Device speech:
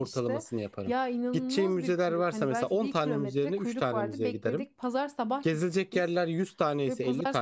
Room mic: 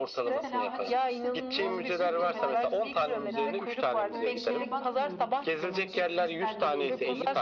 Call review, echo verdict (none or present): present